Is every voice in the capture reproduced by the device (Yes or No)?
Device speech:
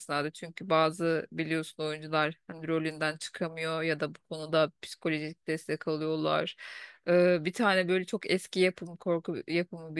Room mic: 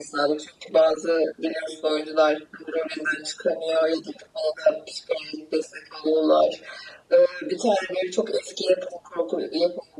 Yes